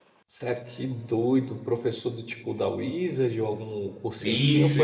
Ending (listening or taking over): taking over